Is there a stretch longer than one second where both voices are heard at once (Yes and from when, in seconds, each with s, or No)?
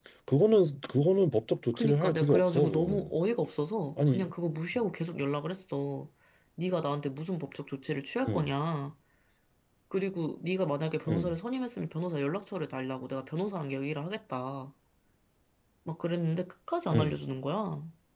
Yes, from 1.7 s